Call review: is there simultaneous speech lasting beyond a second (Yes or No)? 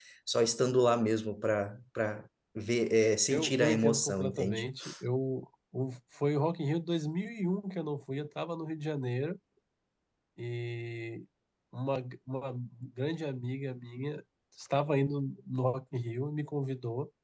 Yes